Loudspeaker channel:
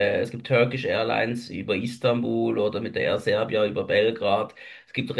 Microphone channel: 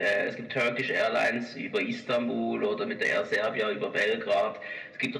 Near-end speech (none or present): none